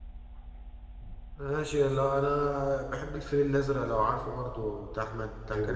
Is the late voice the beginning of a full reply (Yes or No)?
Yes